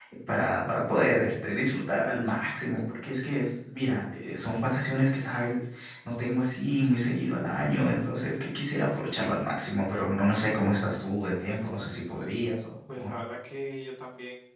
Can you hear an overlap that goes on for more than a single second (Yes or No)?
No